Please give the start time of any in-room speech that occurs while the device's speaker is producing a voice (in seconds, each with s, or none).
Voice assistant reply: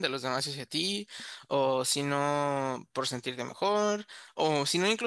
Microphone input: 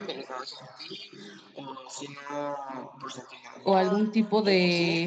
3.6 s